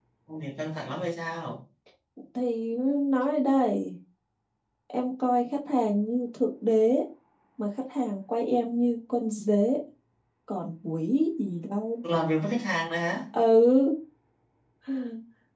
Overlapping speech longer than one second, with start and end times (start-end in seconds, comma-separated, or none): none